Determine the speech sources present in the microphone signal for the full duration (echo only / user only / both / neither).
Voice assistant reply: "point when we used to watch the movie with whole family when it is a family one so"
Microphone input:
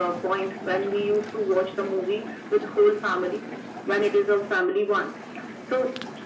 echo only